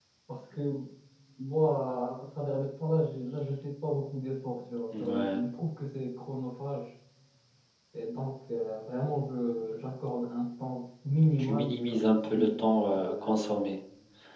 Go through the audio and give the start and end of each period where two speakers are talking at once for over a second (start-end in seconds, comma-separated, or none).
11.4-13.6